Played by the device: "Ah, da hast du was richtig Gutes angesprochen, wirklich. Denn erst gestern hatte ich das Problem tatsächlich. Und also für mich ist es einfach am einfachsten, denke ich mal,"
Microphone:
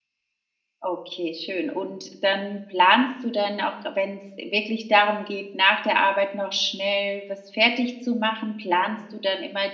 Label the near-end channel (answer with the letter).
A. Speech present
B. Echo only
A